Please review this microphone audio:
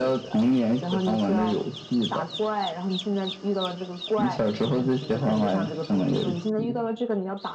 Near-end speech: none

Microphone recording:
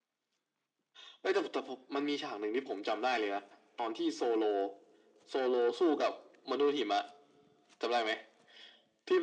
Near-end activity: none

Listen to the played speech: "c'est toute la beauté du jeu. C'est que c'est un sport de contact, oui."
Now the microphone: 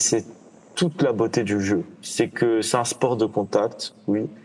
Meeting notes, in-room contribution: none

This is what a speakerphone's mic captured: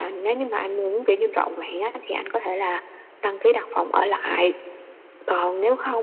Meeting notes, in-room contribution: none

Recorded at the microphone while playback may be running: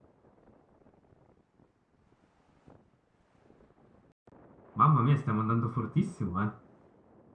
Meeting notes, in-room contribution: present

